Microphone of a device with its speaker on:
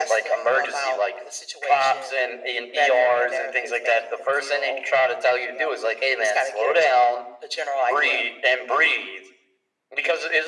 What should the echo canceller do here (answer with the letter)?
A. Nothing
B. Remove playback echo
B